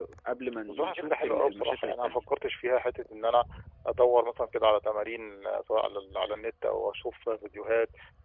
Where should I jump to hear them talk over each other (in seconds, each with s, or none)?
0.7 s